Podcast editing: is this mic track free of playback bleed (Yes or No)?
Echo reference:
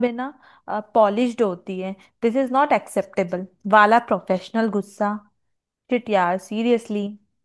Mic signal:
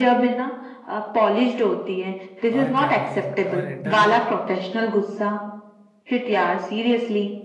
No